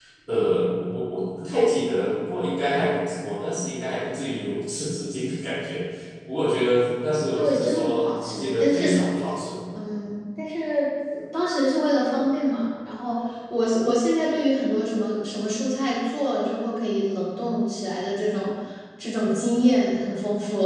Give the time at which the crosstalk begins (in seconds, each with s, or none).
7.4 s